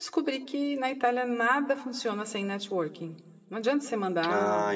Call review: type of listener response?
taking over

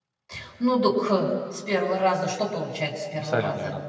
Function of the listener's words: taking over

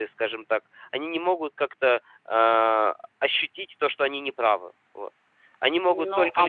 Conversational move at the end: taking over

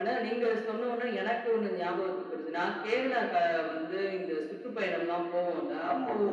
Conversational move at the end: listening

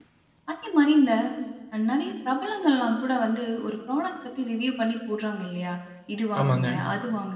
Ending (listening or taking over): listening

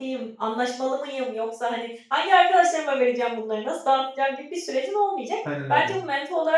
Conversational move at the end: listening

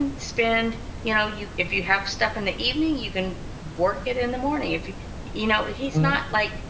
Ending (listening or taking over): listening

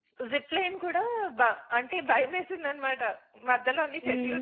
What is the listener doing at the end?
listening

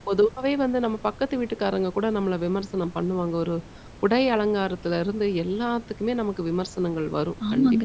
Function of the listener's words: listening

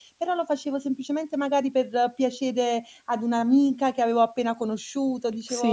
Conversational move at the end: taking over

